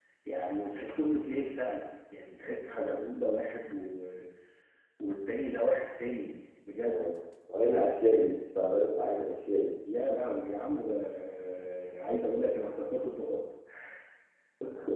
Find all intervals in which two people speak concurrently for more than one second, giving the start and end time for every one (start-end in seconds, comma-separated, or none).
none